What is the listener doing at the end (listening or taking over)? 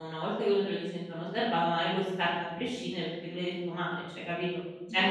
taking over